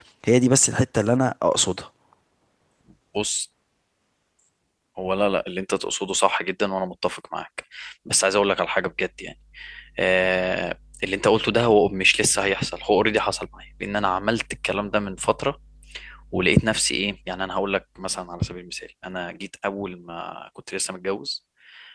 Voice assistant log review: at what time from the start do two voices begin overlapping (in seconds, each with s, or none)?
none